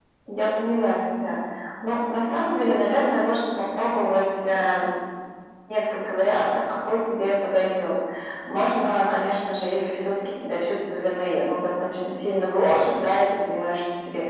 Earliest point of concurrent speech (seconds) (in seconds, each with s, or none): none